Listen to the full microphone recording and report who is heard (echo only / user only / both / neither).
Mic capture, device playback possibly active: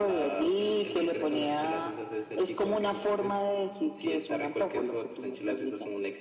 echo only